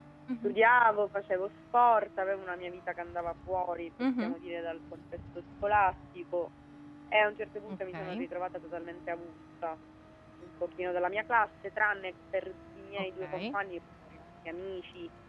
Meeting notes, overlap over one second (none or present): none